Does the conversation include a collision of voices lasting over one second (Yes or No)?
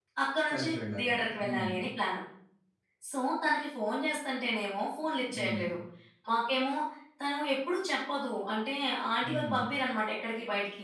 Yes